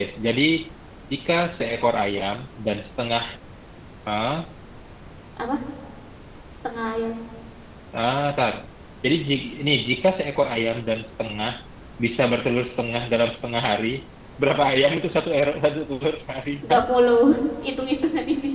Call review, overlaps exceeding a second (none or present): none